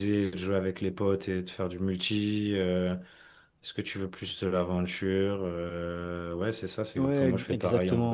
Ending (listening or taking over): taking over